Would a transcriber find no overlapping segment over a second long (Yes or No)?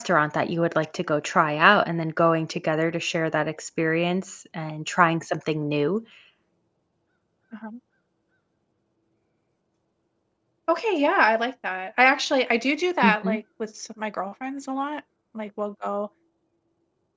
Yes